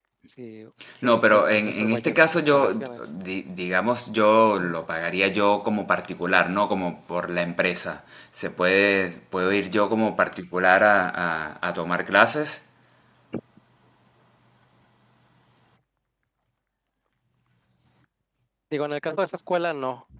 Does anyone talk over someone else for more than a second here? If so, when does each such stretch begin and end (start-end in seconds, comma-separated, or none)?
1.0-3.0